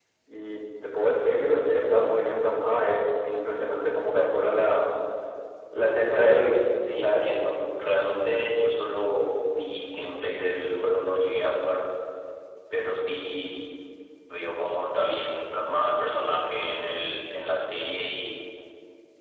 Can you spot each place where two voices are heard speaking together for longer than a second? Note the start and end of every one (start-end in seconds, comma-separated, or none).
none